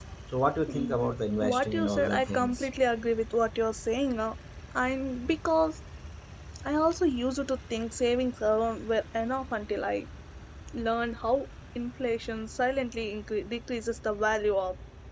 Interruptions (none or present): present